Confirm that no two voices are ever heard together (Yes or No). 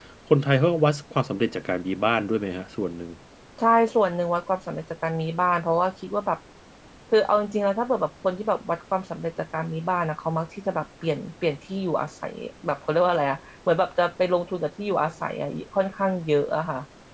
Yes